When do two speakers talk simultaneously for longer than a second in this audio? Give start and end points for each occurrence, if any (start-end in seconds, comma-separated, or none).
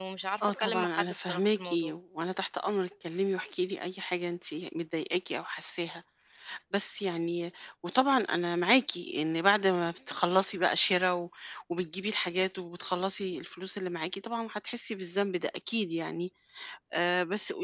0.6-1.9